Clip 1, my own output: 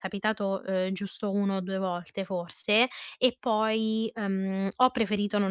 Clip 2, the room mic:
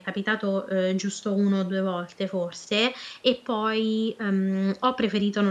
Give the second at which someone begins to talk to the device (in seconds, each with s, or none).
none